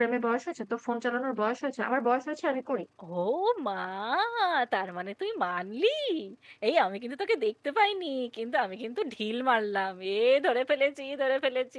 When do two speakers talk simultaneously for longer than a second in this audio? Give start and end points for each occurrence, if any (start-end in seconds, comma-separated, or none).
none